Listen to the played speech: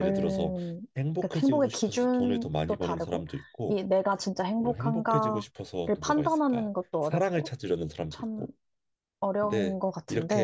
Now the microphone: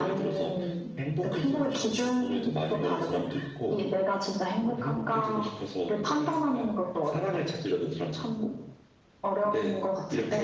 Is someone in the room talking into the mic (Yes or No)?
No